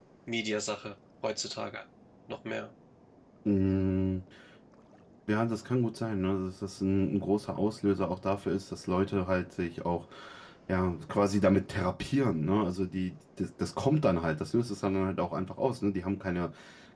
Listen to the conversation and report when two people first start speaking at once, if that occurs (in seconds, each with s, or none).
none